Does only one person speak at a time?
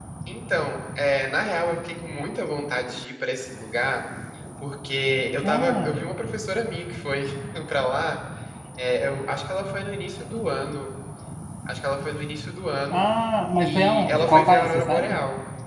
No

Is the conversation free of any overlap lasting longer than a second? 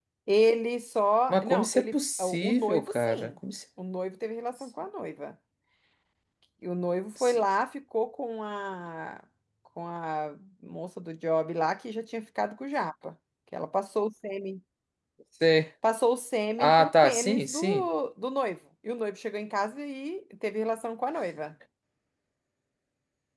No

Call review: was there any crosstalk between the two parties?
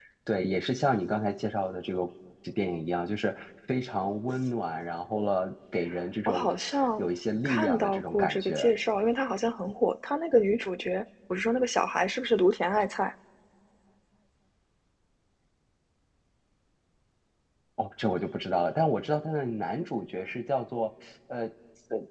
Yes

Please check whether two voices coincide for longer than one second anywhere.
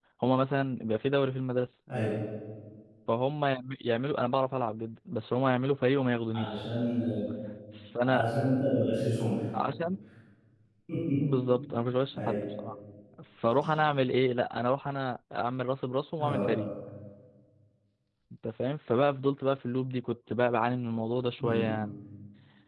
No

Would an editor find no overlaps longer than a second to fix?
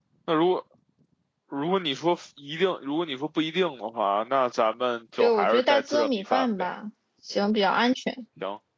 No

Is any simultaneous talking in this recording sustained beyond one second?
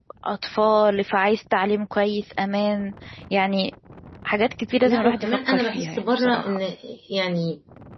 Yes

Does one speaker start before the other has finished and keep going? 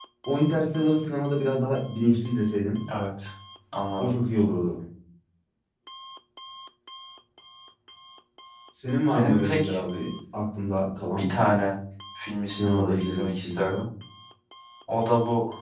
Yes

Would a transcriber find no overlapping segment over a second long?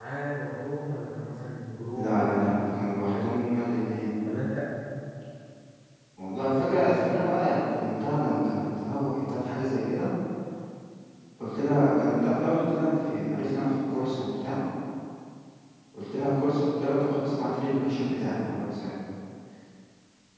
No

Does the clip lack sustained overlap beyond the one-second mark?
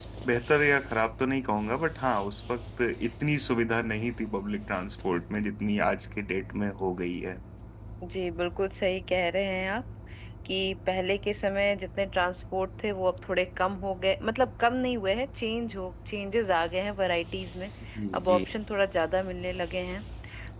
Yes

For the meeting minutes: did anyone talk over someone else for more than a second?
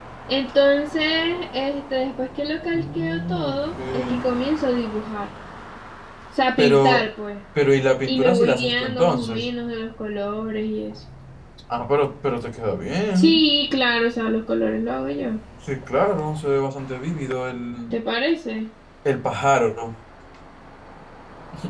Yes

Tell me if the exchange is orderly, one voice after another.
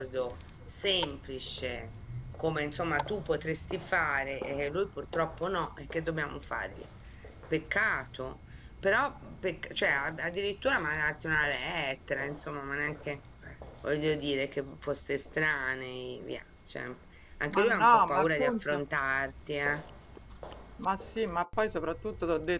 No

